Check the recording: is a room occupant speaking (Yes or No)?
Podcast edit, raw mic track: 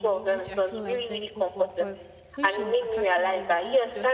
Yes